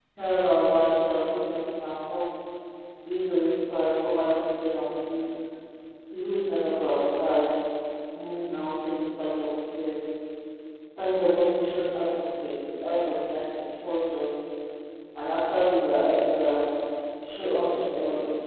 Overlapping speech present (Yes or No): No